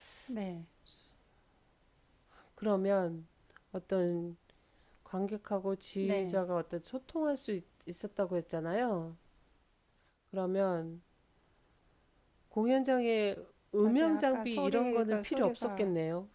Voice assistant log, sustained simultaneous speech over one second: present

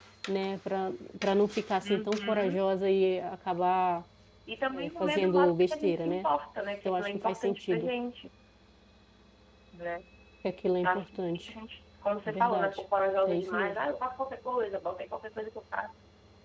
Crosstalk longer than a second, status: present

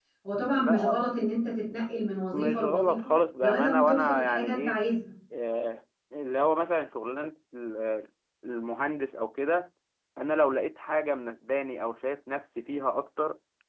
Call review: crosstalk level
present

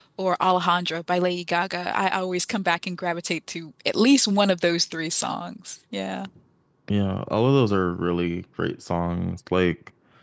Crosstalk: none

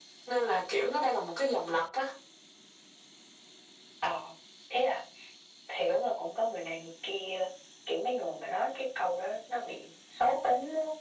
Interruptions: none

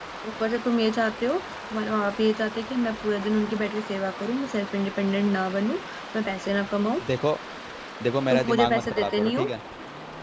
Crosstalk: present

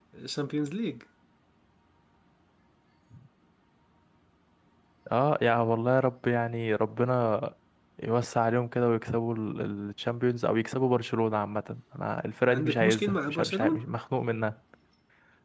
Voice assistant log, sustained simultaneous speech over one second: present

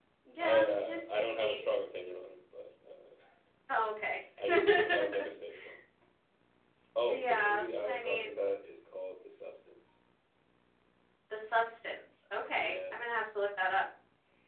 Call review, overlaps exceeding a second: present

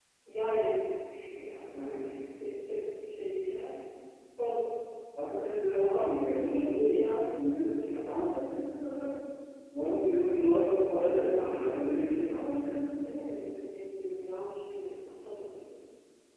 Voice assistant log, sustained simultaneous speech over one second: present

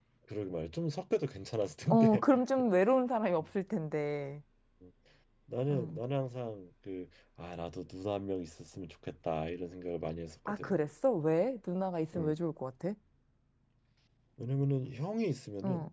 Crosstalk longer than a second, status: none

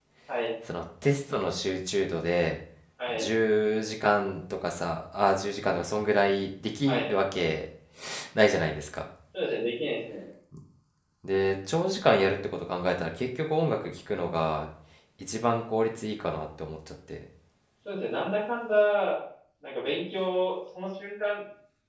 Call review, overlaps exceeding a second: none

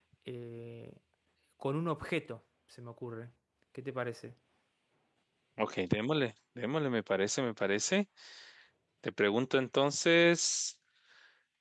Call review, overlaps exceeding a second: none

